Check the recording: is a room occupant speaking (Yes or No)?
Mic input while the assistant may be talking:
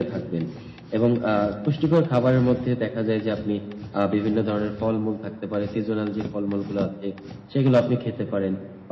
No